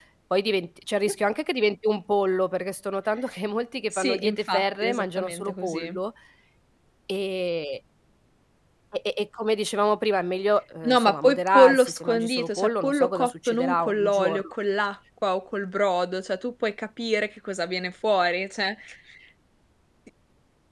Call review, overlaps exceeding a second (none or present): present